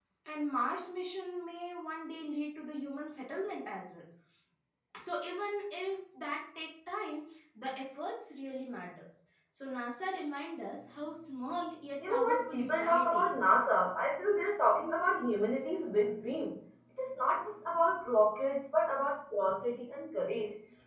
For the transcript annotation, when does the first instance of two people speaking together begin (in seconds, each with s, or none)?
12.0 s